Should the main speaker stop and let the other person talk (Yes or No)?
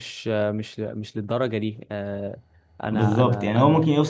Yes